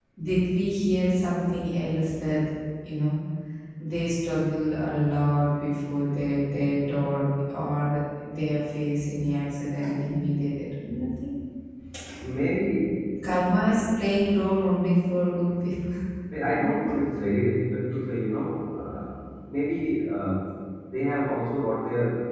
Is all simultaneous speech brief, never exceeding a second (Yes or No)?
Yes